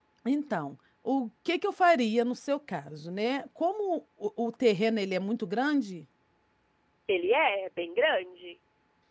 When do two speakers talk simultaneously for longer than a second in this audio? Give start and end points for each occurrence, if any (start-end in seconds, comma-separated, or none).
none